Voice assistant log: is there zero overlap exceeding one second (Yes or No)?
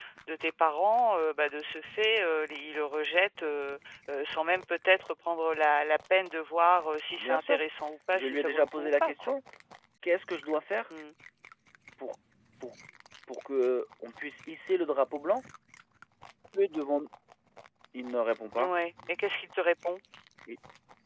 No